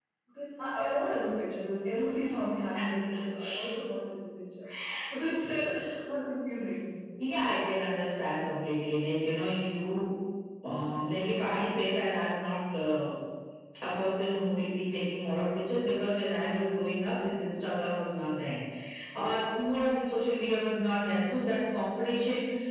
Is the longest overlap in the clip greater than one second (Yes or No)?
No